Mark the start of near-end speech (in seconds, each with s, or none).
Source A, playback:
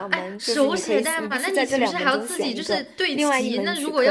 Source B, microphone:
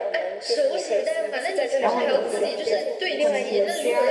1.8 s